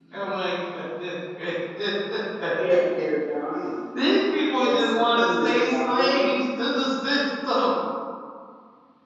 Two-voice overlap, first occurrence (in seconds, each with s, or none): 4.6 s